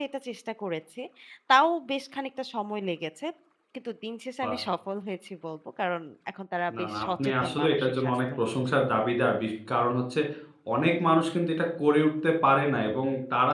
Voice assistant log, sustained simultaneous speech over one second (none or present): present